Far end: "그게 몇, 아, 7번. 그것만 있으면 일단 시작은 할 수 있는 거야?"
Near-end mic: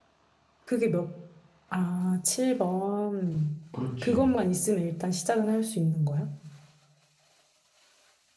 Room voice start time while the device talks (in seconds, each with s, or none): 3.7 s